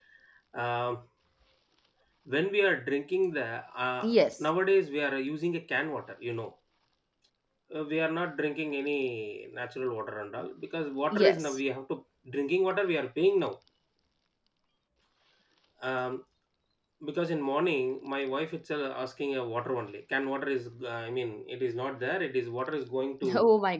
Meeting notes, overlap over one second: none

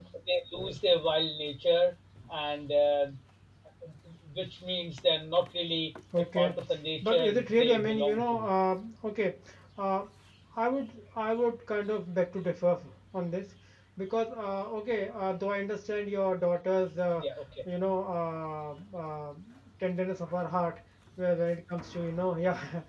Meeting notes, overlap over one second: present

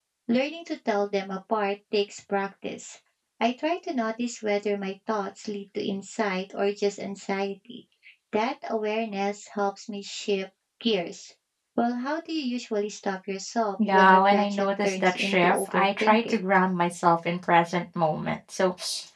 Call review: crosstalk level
present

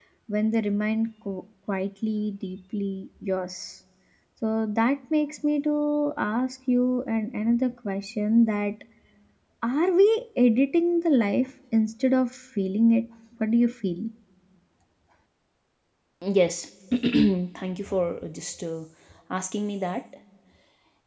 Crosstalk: none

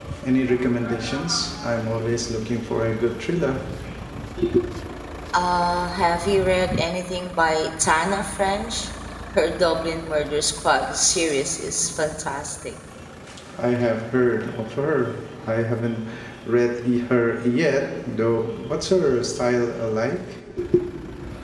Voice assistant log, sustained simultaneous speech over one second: none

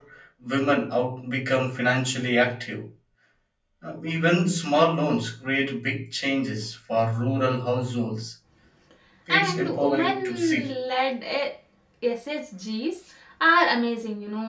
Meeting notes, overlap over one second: present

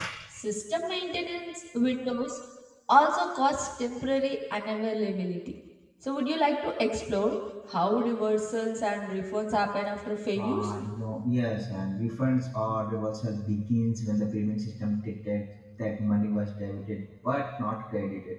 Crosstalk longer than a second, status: none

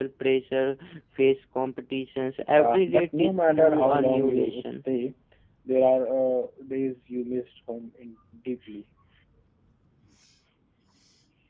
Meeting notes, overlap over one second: present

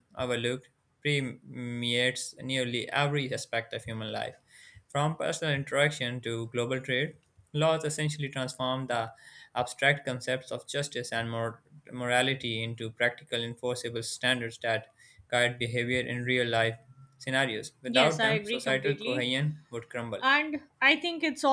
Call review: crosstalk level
present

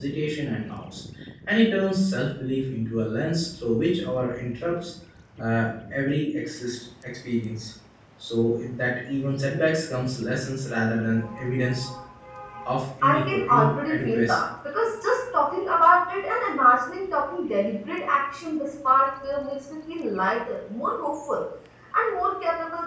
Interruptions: present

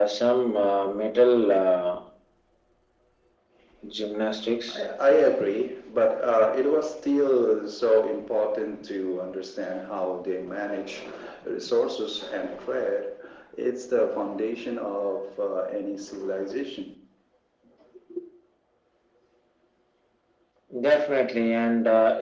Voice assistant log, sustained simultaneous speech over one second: none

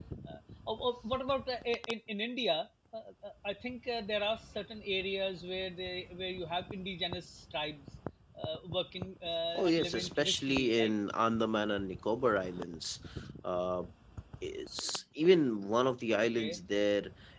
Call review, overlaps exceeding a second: present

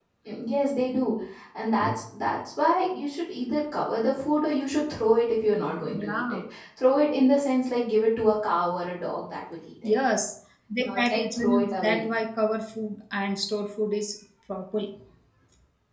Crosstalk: present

